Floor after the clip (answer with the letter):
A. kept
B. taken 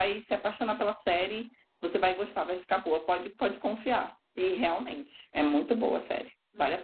B